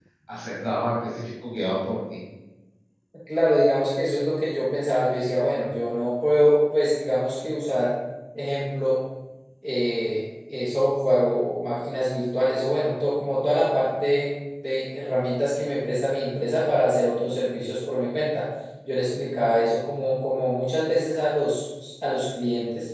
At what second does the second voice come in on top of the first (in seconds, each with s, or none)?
none